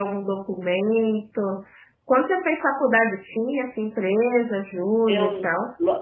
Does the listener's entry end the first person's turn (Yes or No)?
Yes